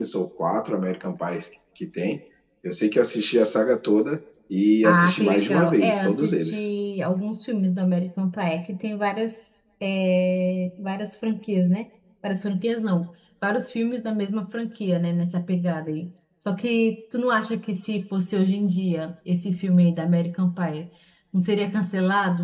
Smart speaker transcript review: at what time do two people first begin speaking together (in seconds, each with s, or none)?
4.8 s